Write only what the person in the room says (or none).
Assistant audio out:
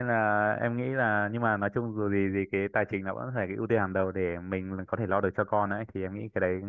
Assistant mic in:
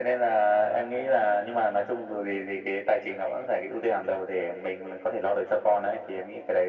none